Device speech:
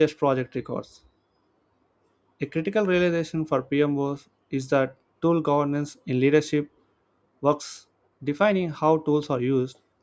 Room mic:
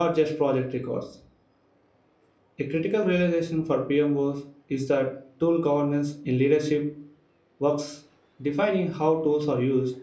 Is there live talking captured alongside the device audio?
No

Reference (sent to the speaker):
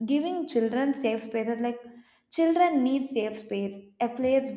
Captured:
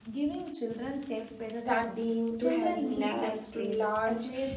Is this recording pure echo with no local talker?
No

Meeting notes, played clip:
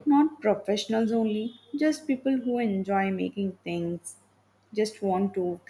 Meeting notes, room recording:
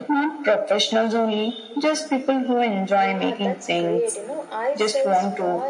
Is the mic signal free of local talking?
No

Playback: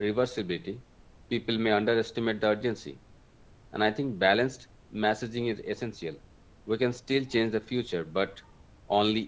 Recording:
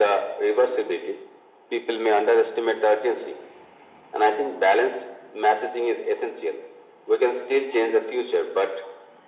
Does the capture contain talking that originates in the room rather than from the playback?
No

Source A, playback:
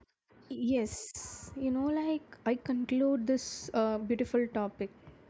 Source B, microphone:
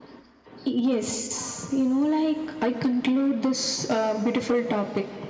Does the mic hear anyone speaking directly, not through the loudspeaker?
No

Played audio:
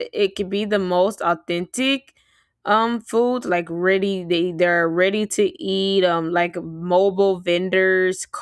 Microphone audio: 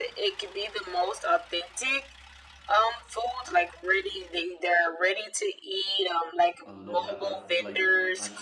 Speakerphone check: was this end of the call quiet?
No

